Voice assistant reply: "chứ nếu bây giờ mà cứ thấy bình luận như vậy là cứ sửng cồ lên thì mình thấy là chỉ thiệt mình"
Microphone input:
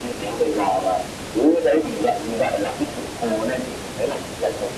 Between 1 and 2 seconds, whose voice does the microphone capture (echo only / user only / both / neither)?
echo only